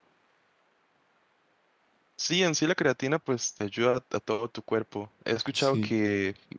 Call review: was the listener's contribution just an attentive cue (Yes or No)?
Yes